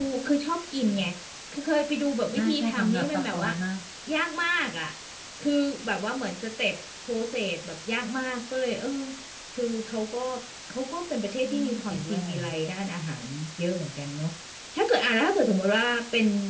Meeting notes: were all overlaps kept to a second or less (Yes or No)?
No